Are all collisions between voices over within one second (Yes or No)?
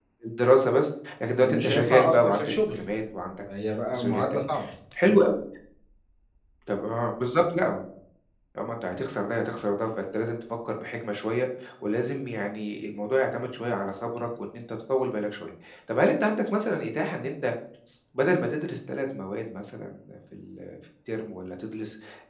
No